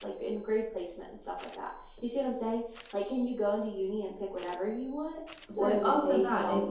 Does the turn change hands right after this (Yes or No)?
Yes